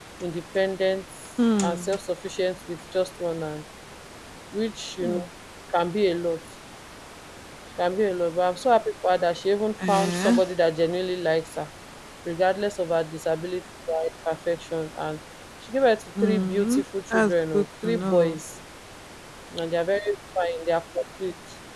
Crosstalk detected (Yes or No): Yes